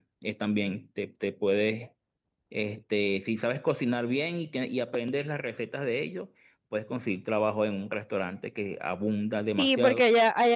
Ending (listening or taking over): taking over